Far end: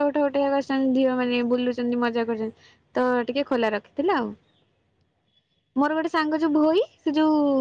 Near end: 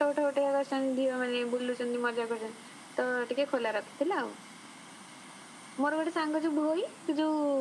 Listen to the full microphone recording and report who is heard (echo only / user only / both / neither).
echo only